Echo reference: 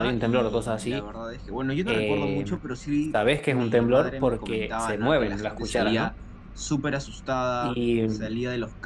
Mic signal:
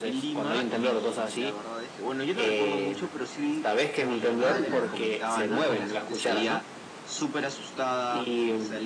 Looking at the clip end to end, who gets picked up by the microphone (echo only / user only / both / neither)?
both